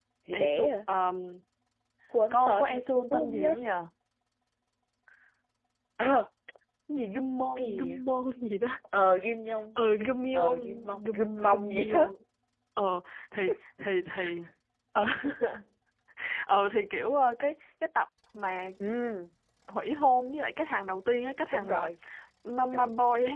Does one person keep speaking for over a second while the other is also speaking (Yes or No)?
Yes